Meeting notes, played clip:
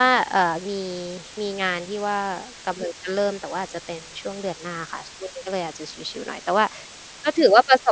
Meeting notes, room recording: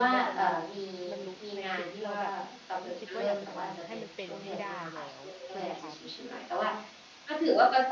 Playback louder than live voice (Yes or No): Yes